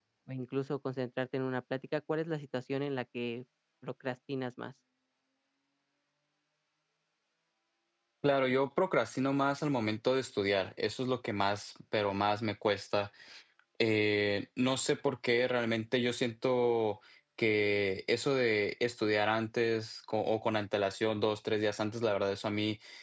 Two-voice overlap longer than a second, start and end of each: none

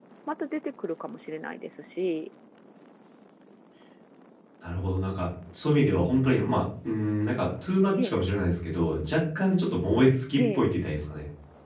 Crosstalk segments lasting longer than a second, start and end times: none

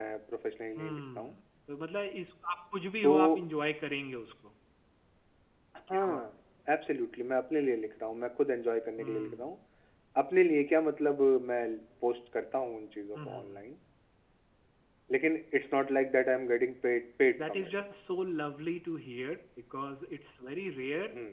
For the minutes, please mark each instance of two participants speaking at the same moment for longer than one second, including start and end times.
none

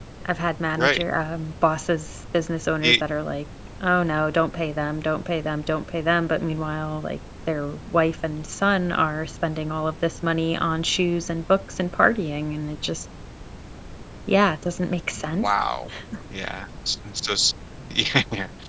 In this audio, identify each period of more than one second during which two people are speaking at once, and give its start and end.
none

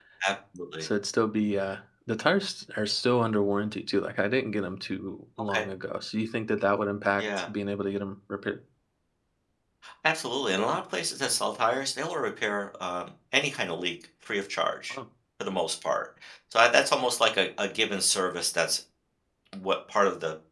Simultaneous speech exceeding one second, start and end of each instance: none

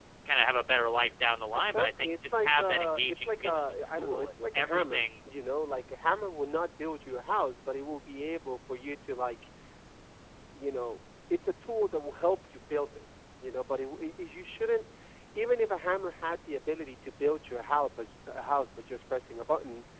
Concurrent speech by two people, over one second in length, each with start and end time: 1.6-5.0

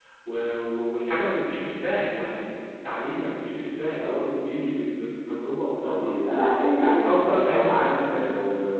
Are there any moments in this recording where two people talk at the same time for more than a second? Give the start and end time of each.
7.0-8.3

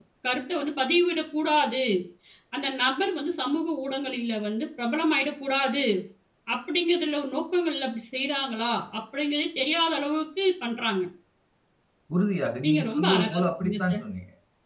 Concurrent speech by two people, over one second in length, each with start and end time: 12.6-14.0

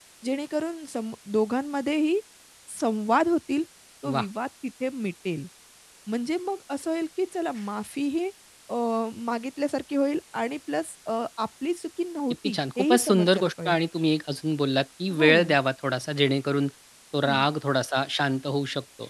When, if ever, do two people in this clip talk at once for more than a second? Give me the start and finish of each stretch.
12.4-13.8

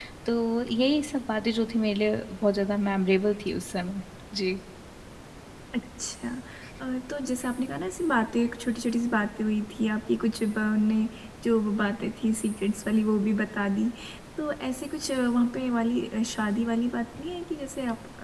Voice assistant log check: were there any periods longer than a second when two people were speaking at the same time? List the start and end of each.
none

